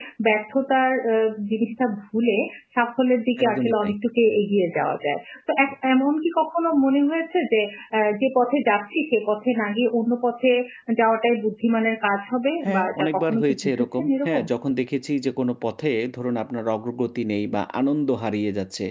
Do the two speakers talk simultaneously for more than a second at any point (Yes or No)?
Yes